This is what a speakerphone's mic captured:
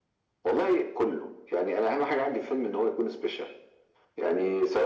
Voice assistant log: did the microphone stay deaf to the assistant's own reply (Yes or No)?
No